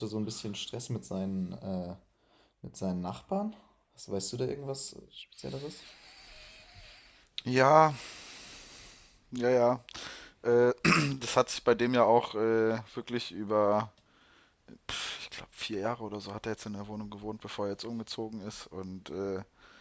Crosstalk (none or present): none